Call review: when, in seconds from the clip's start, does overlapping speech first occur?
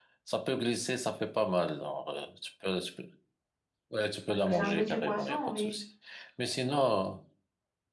4.4 s

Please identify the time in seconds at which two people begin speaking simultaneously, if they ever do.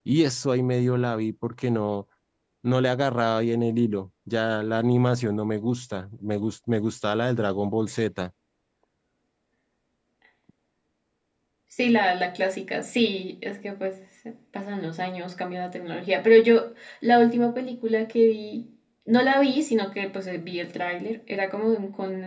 none

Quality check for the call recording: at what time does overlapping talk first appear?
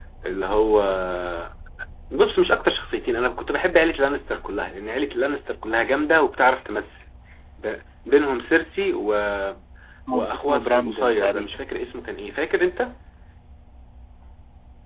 10.1 s

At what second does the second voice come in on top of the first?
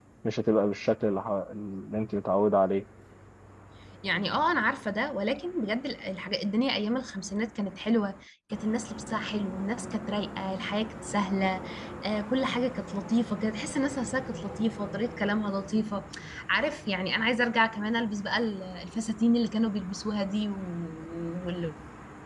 none

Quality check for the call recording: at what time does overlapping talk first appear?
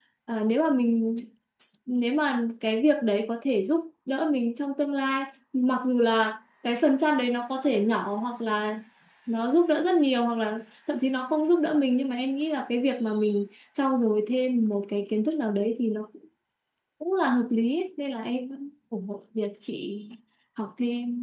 none

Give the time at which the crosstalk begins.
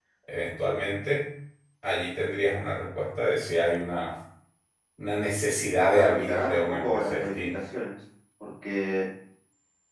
5.9 s

